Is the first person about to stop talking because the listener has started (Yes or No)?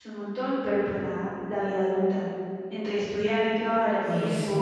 No